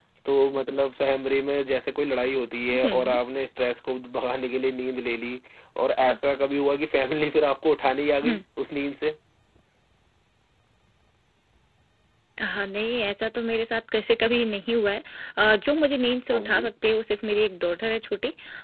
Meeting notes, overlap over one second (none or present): none